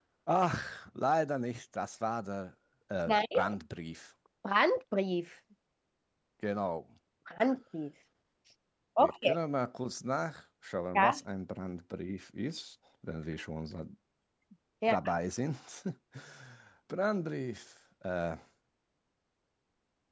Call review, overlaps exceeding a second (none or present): none